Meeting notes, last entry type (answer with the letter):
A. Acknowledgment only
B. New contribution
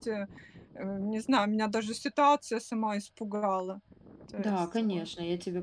B